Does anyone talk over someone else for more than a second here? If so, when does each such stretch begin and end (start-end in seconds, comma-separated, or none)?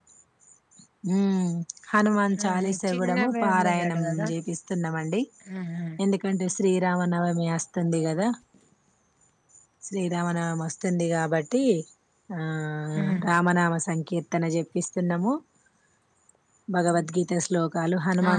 2.4-4.3